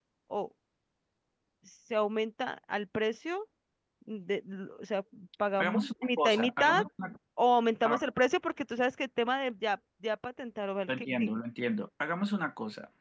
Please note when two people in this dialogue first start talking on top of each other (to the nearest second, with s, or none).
6 s